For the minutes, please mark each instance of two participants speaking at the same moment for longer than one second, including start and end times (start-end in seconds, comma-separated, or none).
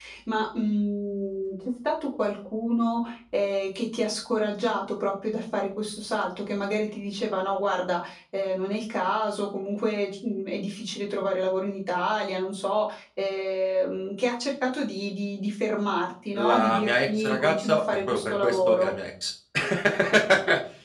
16.4-18.9